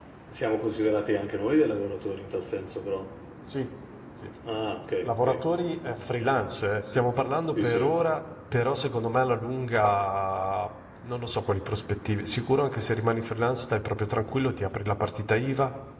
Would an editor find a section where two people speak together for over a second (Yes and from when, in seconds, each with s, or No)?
No